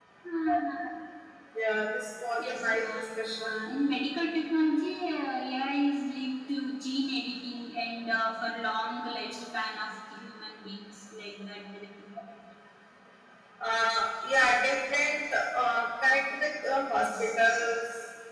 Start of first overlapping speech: 2 s

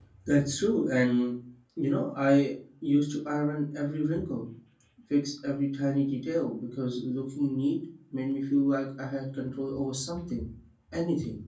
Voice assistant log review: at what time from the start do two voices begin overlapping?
none

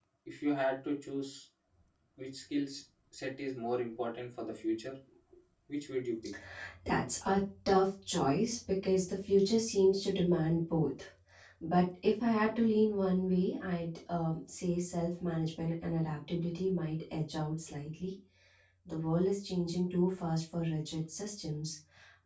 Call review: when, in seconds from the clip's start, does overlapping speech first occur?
none

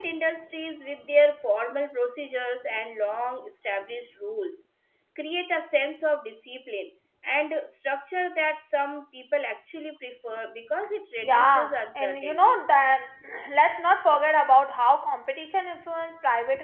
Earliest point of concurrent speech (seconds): 11 s

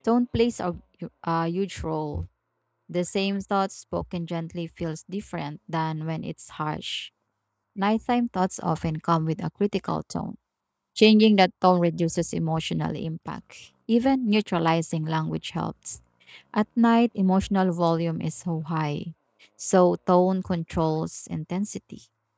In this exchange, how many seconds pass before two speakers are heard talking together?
none

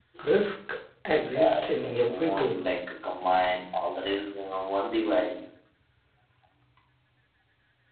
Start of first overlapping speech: 1 s

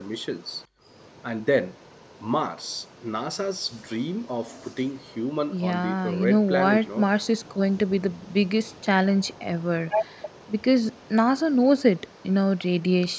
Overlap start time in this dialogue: 6 s

